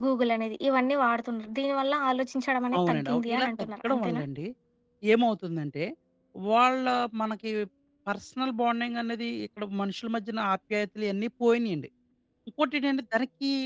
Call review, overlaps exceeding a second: present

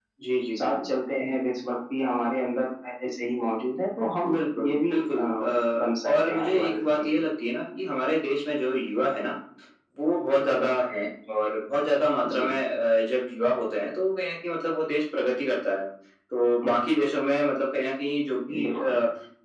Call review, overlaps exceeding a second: present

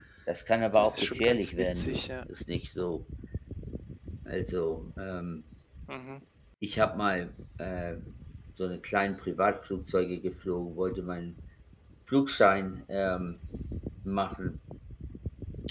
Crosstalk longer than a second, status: present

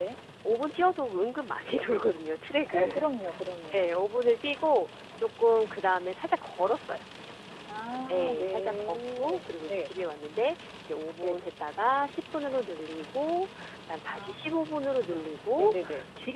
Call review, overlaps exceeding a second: present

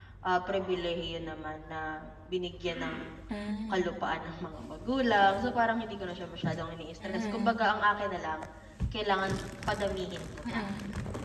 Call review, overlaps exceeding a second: none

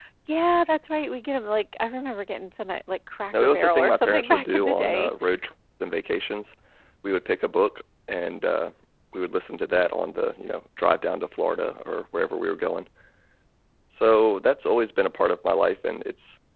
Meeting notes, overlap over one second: present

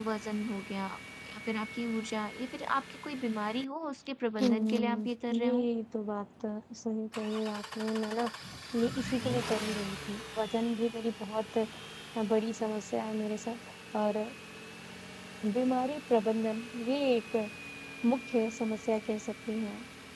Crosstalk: present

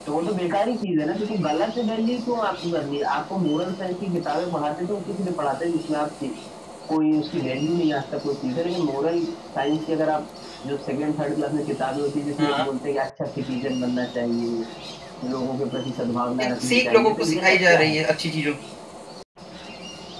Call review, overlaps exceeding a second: present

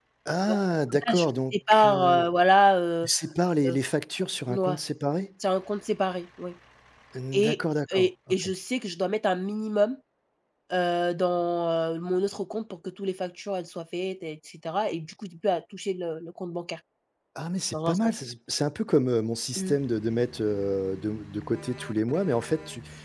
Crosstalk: present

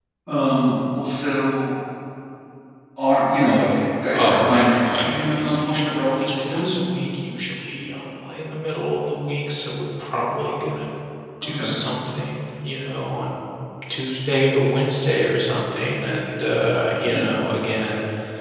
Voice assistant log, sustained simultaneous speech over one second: present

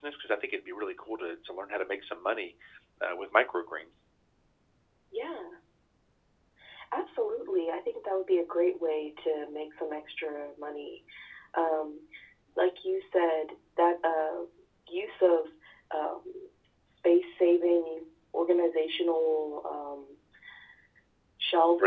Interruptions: none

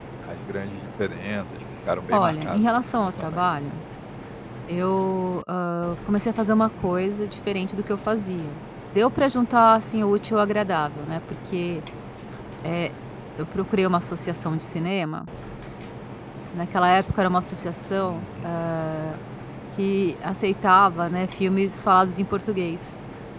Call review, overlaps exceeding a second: present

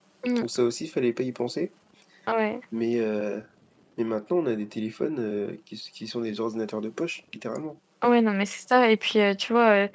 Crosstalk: none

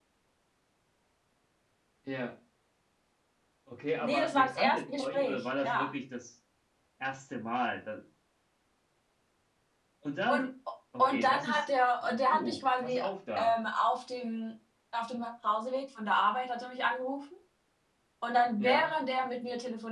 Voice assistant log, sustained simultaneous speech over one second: present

